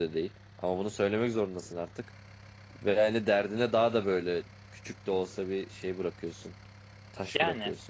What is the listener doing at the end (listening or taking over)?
taking over